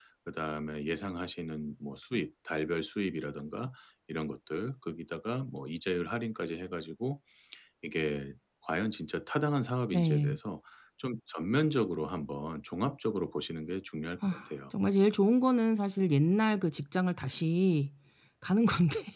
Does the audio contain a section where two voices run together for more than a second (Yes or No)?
No